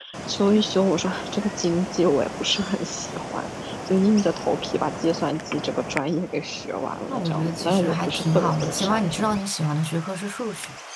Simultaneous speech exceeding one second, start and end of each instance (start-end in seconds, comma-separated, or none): 7.1-9.2